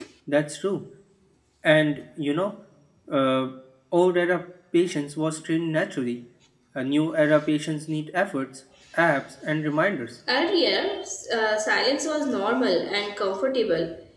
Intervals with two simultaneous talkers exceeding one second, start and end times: none

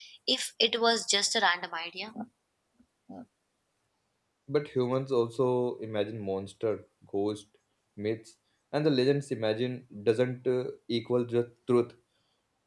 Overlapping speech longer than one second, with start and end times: none

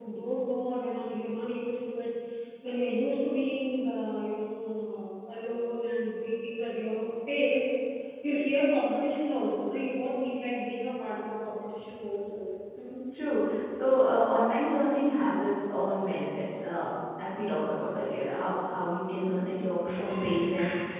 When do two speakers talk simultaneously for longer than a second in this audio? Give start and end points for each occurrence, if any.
none

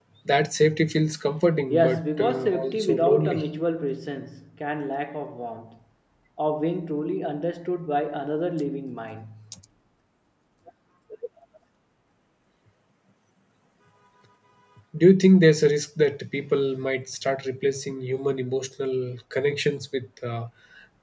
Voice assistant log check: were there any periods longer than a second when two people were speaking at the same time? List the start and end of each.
1.7-3.4

